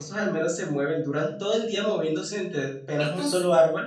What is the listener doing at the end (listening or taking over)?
listening